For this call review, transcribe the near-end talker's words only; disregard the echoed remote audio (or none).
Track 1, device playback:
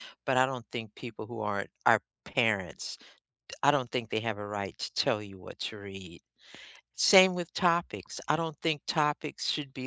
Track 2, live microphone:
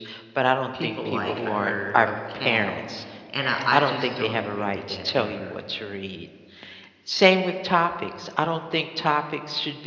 people like a herd of cattle, and I I just don't agree with that ever.